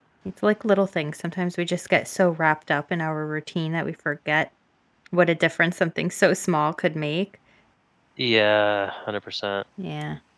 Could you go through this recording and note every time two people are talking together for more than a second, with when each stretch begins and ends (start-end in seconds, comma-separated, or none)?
none